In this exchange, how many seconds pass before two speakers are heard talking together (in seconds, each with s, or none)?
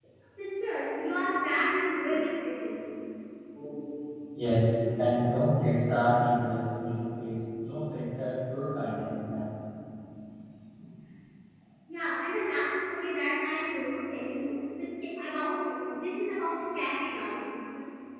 none